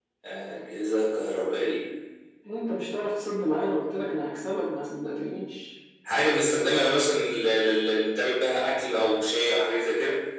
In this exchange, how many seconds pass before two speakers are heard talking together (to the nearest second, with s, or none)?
none